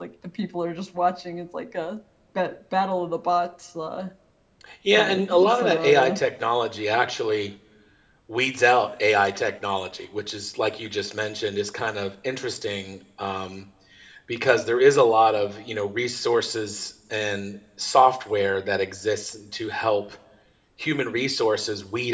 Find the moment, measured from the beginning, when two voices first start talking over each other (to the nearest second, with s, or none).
5 s